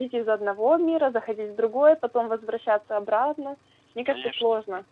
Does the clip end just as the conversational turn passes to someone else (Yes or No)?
Yes